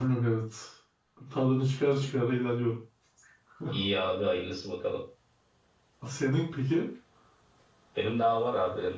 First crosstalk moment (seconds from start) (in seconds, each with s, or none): none